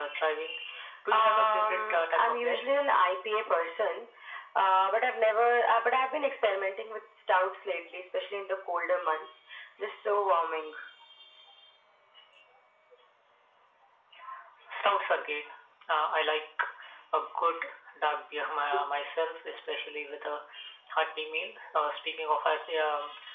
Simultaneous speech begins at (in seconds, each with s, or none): 1.1 s